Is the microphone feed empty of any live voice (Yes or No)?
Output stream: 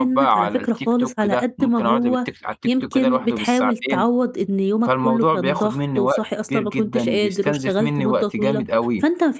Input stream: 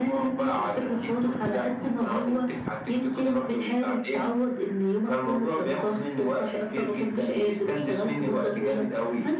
Yes